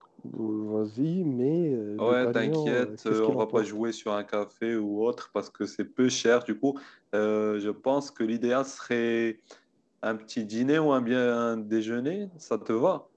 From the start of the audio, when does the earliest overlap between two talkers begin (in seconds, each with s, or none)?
2.0 s